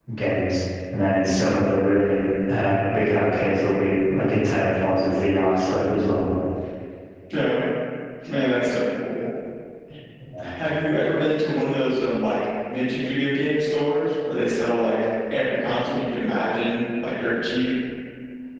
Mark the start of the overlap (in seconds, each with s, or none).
none